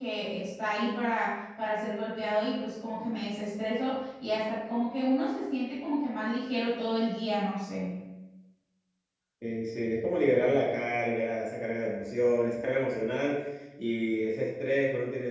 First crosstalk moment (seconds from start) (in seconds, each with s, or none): none